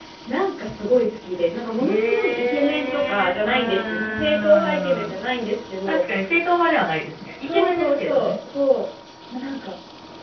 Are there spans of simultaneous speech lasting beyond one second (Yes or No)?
Yes